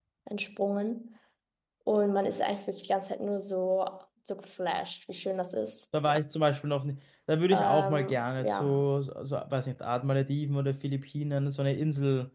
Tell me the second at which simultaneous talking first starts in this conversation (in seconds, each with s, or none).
7.5 s